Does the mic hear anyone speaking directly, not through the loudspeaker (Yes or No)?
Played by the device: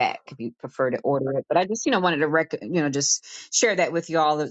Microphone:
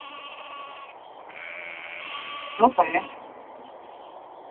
Yes